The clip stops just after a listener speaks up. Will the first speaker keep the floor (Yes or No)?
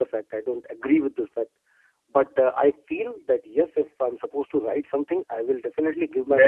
No